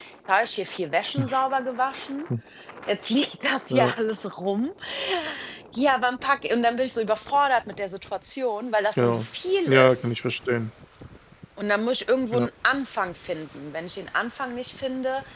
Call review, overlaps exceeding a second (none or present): none